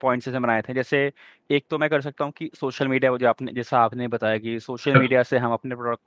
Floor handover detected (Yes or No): No